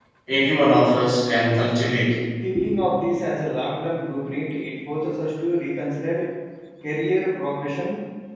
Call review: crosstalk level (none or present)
none